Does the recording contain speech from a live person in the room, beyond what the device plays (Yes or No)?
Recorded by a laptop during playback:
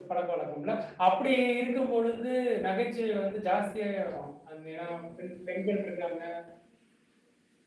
Yes